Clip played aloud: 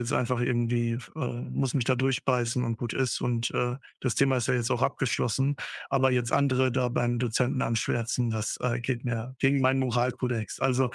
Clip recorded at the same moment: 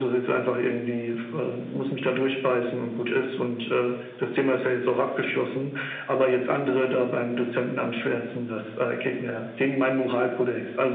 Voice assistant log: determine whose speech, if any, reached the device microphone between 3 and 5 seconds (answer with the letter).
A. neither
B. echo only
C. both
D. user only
B